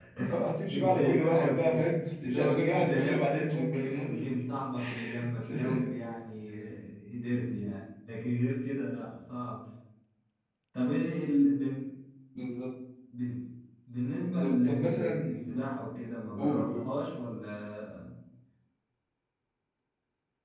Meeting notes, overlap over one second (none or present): present